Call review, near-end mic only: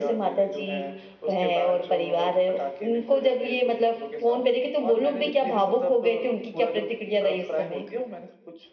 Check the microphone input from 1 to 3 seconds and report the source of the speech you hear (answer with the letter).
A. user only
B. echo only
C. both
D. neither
B